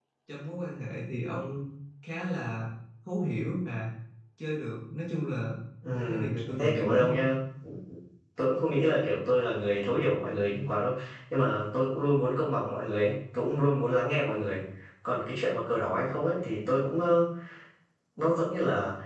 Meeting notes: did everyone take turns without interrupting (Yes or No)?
No